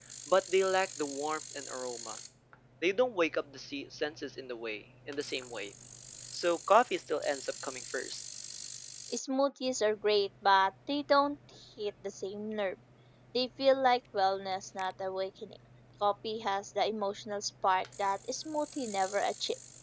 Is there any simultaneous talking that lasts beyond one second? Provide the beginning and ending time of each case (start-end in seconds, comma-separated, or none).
none